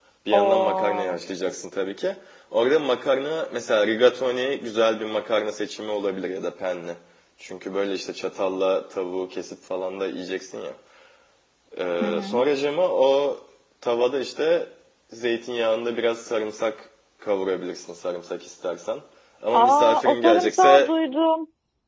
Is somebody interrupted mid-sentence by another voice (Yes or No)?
Yes